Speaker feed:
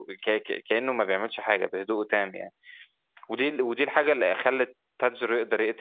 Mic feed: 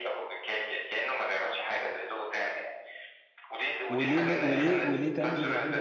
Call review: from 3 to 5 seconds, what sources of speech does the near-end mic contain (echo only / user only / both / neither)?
both